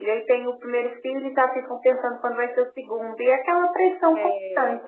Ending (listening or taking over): taking over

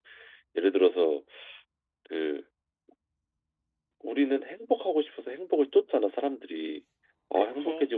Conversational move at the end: listening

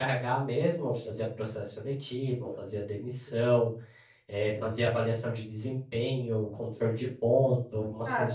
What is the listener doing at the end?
taking over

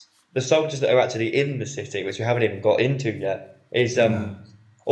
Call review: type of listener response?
listening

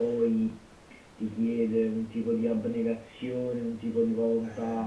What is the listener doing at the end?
listening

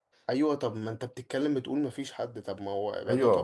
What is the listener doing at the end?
listening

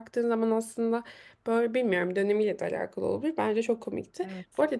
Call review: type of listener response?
listening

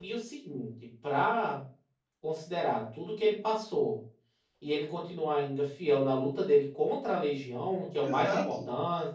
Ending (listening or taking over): listening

